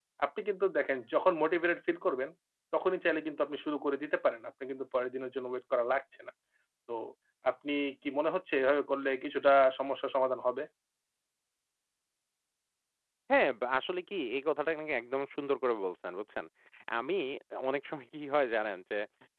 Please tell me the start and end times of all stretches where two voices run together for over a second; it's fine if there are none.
none

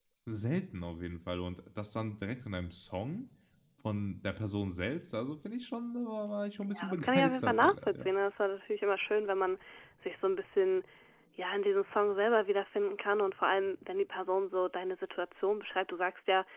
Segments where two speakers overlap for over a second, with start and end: 6.6-8.1

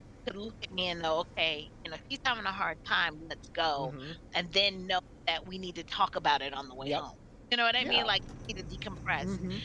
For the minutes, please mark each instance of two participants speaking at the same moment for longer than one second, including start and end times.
none

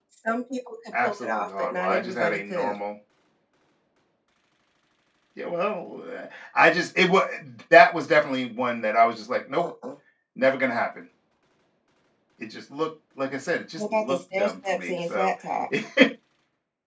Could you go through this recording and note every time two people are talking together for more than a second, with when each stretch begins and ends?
1.0-2.7, 13.8-15.3

